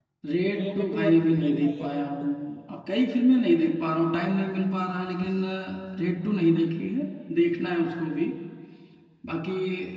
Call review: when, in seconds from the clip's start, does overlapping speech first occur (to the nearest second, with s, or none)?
1 s